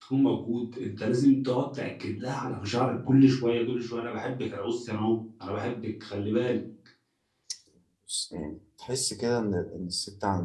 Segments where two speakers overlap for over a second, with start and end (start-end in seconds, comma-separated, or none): none